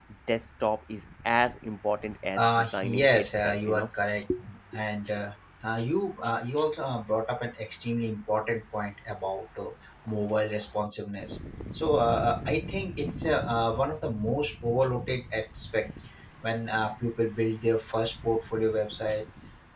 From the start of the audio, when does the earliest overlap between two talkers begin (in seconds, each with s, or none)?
2.4 s